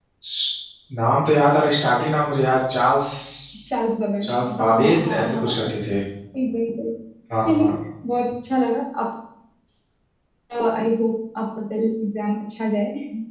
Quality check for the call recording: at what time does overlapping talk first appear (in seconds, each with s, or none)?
4.2 s